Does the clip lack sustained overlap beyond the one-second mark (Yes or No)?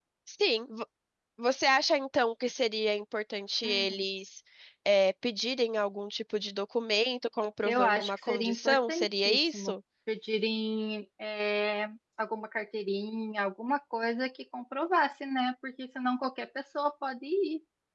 No